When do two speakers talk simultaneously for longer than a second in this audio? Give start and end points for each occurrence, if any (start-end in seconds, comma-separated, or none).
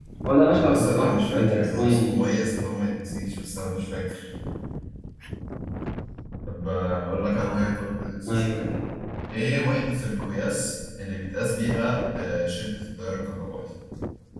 0.5-2.4